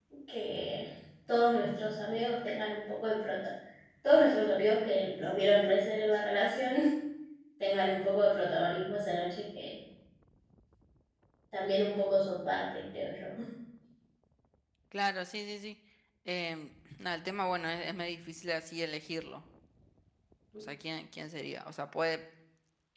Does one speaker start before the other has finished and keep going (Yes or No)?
No